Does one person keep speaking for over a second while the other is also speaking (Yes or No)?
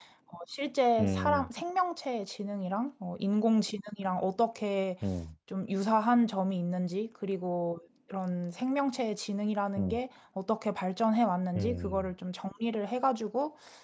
No